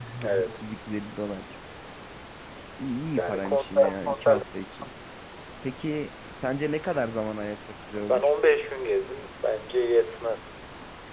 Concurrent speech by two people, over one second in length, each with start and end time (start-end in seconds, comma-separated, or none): 3.2-4.4